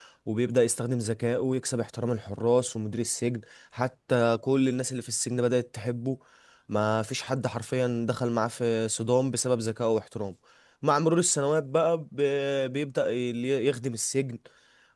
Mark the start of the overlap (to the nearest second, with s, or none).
none